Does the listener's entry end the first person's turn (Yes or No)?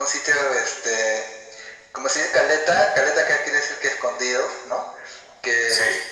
No